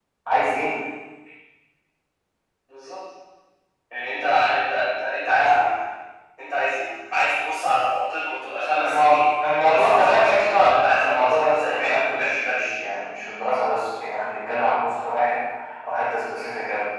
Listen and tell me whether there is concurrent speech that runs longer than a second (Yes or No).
Yes